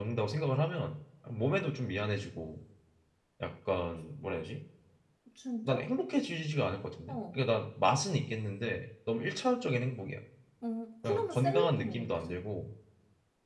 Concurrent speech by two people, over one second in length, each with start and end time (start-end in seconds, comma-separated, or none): 11.0-12.4